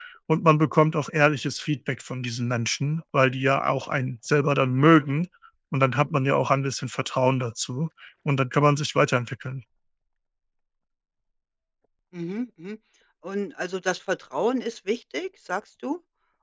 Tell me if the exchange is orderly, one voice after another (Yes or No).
Yes